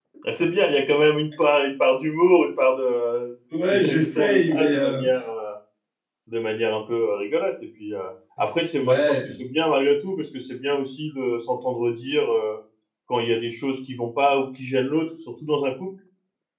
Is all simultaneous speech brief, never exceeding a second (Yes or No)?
No